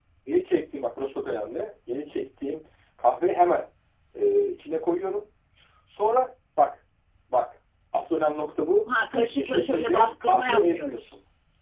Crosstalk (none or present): present